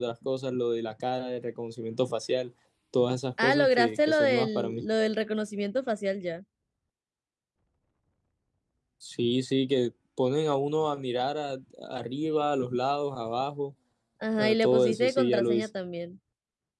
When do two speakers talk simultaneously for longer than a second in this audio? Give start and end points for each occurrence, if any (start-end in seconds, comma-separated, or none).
3.4-4.8, 14.4-15.7